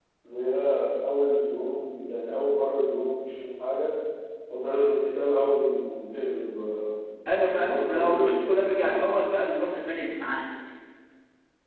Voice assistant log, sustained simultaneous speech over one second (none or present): present